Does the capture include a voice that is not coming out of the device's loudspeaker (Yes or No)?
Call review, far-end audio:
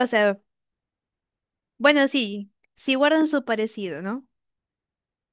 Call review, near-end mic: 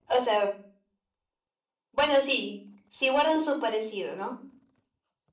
No